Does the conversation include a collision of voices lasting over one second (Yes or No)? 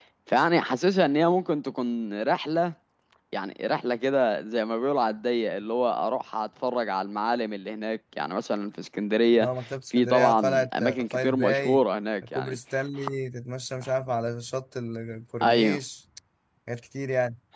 Yes